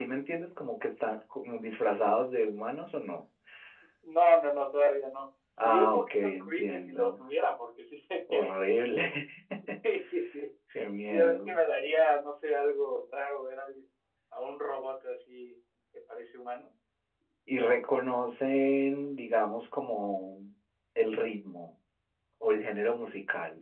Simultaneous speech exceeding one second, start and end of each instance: 5.6-7.1

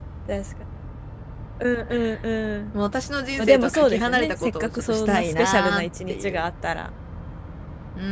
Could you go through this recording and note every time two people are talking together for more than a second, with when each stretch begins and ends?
3.4-6.4

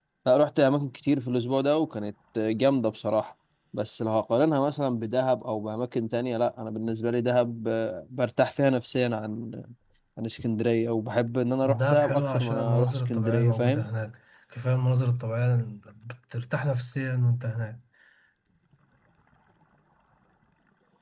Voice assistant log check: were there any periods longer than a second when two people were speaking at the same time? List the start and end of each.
11.8-13.9

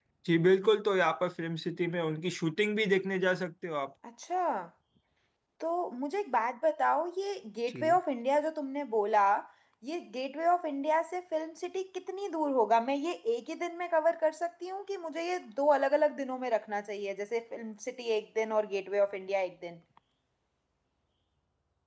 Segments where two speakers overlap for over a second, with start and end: none

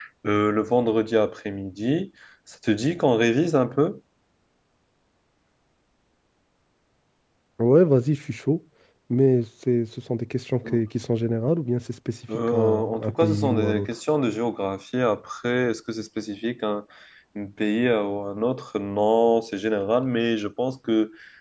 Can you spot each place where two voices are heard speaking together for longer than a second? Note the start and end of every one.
12.3-13.9

